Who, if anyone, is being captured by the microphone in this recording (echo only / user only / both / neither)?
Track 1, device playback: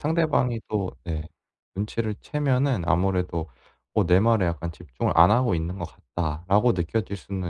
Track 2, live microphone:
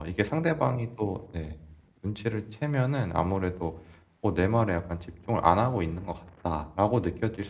echo only